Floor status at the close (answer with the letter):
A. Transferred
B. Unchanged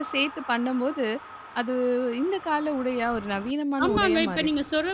A